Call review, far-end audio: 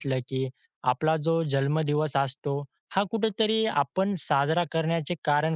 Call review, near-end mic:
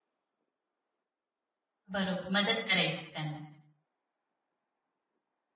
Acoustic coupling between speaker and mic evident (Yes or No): No